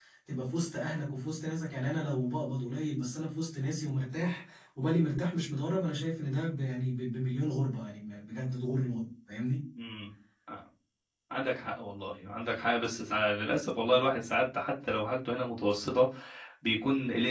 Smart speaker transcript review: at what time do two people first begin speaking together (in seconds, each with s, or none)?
none